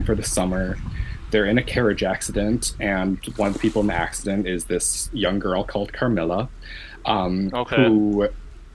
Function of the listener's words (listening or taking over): listening